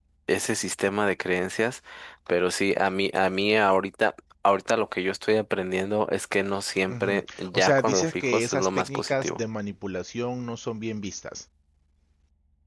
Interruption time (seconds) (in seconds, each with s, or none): 6.9 s